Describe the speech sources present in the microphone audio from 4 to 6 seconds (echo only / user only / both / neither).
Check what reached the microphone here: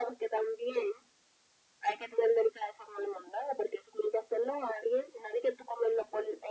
echo only